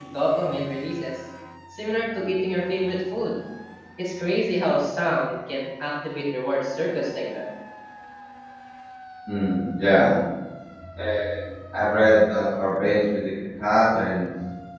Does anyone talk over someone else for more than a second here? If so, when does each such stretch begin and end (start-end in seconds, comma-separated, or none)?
none